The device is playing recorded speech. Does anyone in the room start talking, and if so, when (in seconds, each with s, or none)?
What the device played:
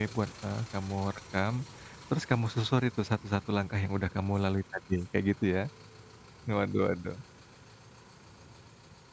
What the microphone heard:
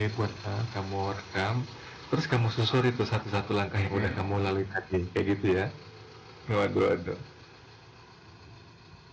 3.8 s